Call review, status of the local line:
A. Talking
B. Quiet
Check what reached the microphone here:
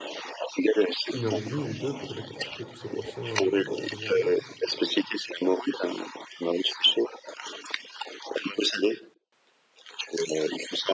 A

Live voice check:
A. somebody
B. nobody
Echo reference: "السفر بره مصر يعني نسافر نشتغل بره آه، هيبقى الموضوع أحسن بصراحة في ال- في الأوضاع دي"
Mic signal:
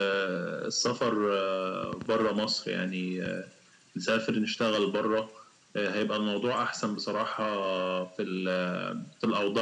B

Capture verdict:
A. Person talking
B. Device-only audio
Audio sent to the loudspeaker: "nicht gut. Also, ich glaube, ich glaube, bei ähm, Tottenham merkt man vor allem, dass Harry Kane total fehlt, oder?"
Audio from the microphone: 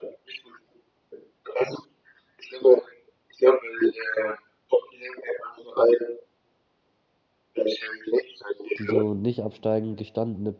A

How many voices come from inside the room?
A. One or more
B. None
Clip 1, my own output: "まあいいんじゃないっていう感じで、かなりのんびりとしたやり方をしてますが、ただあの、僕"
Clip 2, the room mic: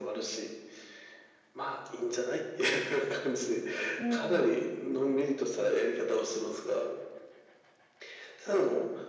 A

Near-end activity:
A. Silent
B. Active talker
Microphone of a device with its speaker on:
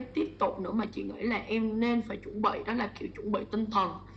A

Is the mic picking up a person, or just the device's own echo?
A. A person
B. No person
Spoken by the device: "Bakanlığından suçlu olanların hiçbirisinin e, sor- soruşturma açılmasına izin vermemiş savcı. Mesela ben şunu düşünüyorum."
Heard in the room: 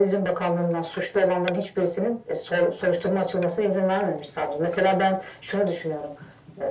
B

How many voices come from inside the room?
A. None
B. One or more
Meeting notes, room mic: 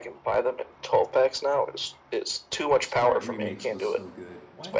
B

